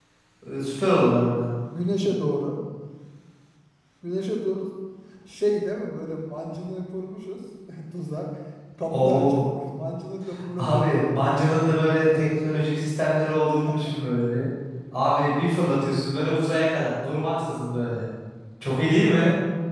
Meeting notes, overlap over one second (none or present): present